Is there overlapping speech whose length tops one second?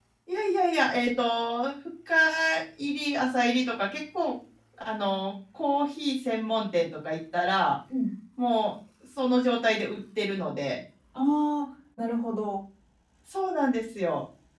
No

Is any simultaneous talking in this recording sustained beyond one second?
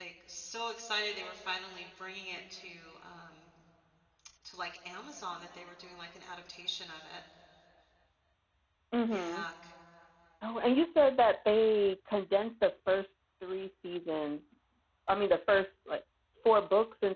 No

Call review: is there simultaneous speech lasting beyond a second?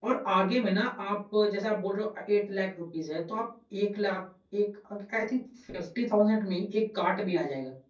No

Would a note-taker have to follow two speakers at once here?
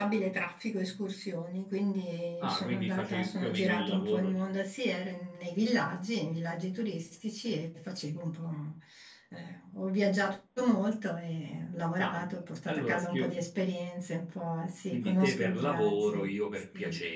Yes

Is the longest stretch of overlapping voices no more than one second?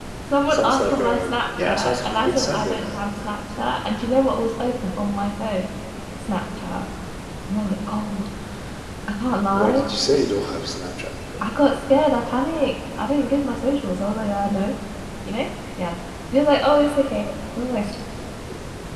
No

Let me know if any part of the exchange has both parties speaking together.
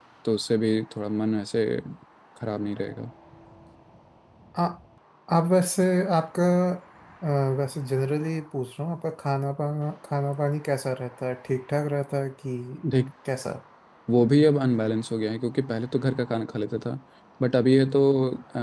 No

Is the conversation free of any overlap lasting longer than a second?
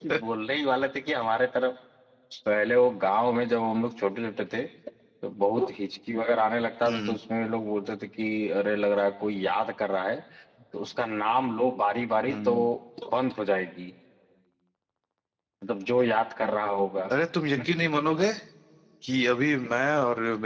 Yes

